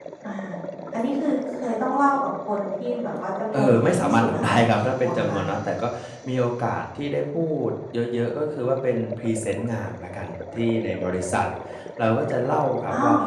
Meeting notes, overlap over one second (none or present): present